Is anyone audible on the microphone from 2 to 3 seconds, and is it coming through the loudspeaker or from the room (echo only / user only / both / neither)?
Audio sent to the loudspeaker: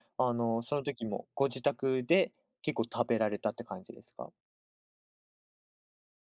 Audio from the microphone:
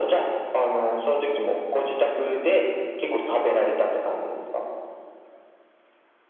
echo only